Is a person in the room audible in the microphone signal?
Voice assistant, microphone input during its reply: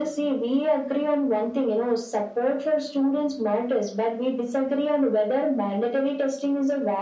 No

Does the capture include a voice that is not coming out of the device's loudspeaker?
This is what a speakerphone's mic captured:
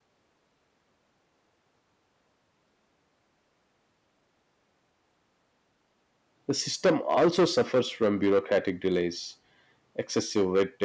Yes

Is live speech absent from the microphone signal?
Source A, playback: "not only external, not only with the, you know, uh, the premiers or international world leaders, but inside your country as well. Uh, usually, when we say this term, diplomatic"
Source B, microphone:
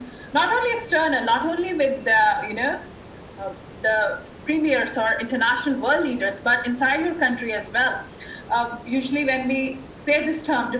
Yes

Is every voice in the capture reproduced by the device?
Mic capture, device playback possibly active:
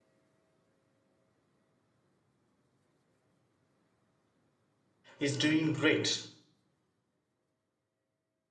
No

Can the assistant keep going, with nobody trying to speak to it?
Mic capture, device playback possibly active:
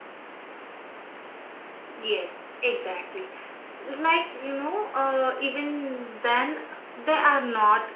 Yes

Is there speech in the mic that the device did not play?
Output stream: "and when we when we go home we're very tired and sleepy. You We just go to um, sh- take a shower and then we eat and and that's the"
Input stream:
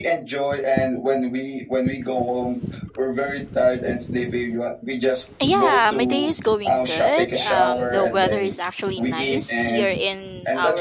Yes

